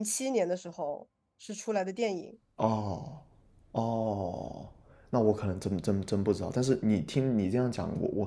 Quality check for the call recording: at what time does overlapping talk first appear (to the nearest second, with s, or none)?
none